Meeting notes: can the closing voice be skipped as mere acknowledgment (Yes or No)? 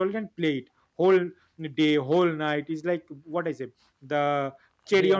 Yes